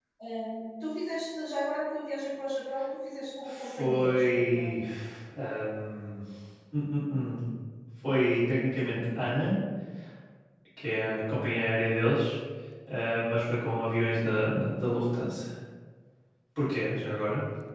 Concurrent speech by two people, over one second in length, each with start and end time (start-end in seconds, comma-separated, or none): 3.5-4.7